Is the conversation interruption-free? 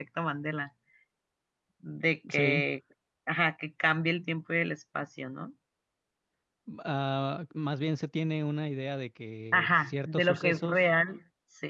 No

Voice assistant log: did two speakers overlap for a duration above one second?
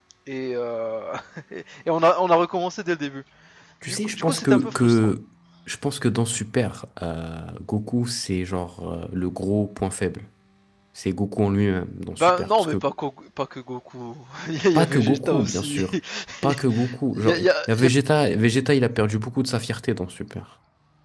Yes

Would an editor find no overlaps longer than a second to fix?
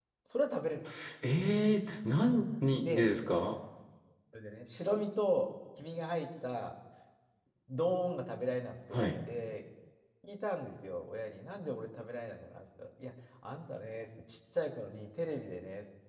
Yes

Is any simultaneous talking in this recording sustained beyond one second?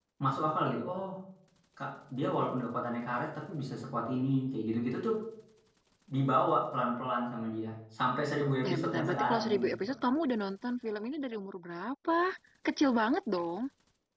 Yes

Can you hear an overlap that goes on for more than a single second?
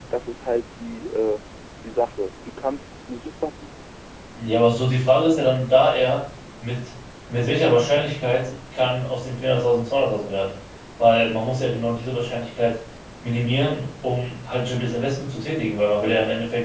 No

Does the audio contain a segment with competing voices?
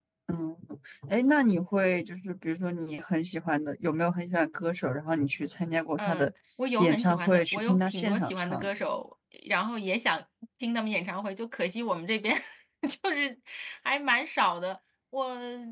Yes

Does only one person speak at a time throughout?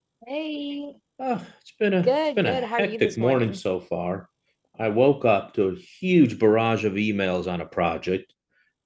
No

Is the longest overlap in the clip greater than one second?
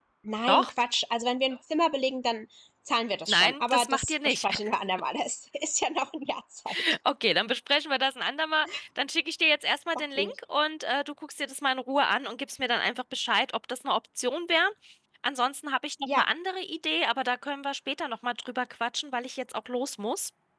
Yes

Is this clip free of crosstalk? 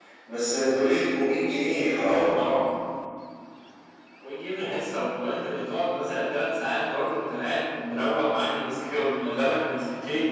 Yes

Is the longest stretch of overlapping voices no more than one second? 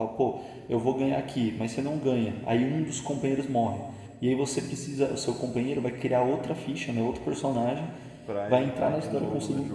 No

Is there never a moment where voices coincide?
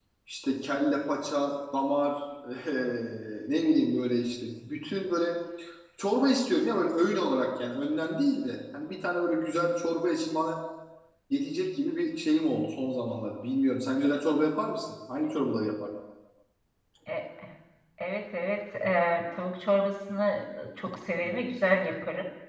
Yes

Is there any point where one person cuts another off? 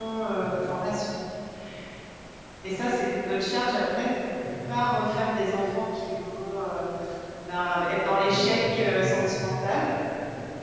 Yes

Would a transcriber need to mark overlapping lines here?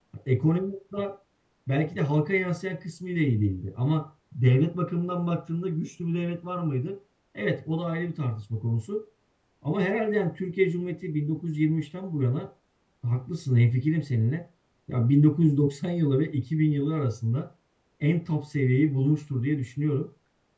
No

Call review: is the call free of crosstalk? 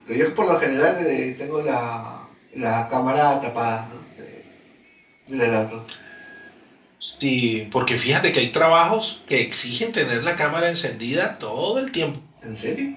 Yes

